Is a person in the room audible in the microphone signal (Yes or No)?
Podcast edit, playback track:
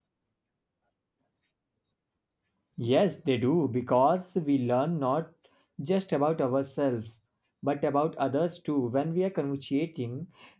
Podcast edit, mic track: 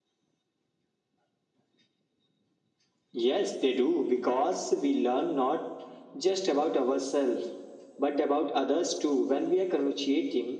No